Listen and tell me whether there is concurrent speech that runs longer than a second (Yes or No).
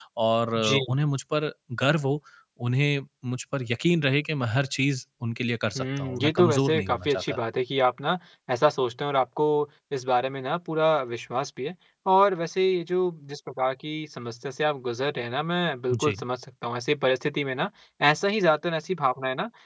Yes